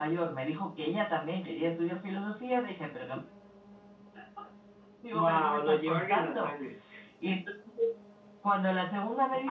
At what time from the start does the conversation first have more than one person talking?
5.1 s

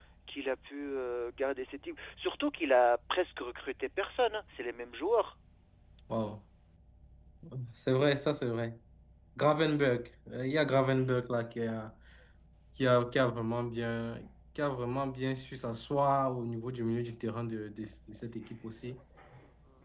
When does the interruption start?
none

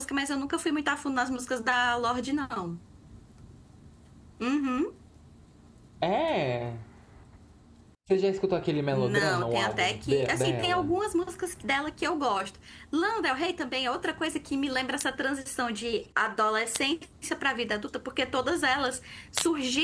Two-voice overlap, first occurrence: 8.9 s

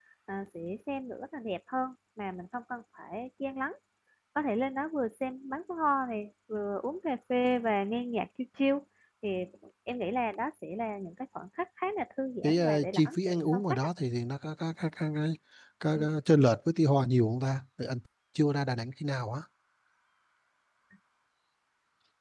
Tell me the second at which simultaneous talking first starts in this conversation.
12.4 s

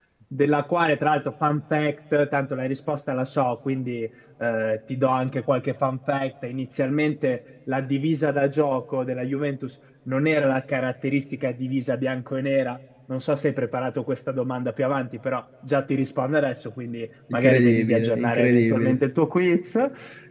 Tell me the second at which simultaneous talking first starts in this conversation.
17.3 s

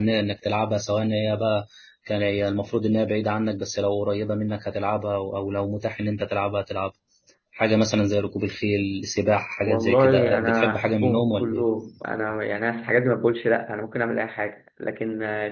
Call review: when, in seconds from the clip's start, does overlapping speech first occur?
9.7 s

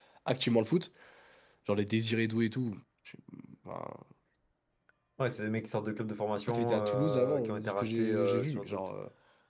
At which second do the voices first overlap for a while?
6.5 s

